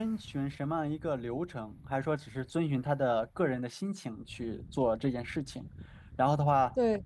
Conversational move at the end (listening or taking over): listening